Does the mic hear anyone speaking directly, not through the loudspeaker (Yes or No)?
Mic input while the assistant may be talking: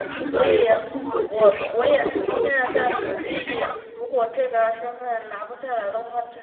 Yes